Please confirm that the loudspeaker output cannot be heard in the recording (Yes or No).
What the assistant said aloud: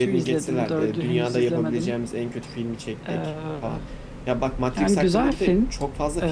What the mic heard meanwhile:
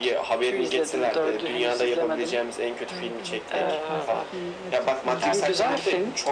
No